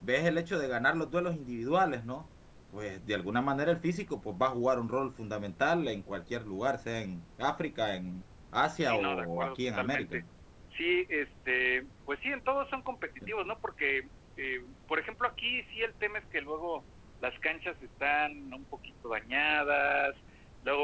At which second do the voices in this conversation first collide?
8.8 s

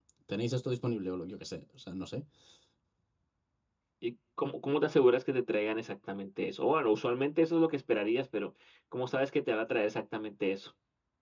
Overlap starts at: none

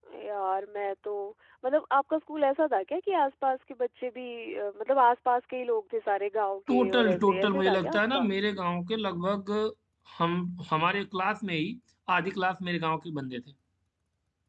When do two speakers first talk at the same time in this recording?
6.7 s

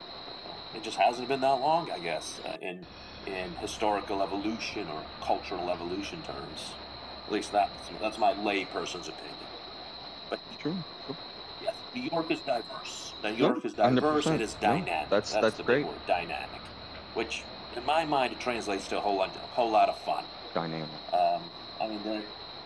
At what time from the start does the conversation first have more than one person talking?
13.4 s

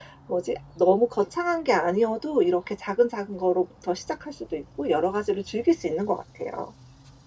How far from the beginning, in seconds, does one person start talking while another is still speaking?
none

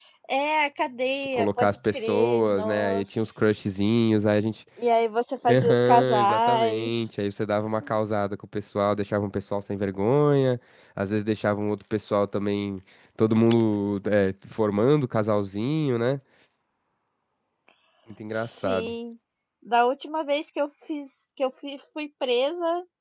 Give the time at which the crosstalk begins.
1.4 s

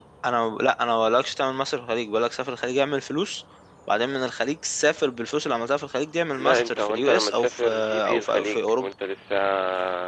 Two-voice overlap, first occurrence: 6.4 s

